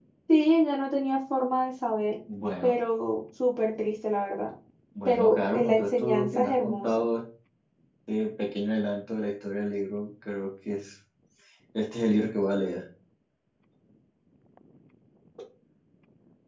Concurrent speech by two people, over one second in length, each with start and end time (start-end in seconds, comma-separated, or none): 5.1-6.9